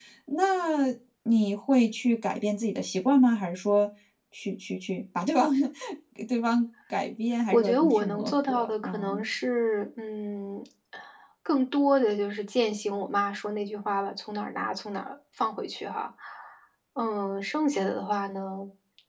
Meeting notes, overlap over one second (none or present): present